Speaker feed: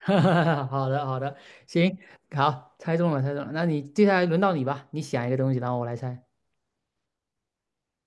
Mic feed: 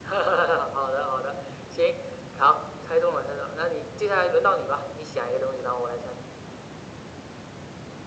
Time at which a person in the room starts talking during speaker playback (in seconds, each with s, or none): none